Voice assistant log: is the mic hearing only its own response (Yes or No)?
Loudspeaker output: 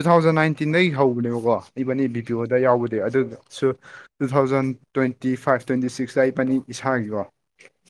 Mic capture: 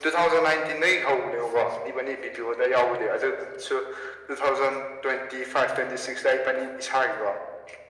Yes